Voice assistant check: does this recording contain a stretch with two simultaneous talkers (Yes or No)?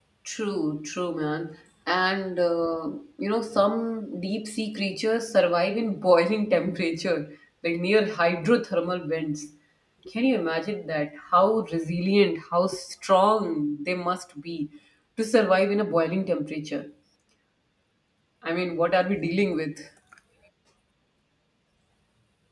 No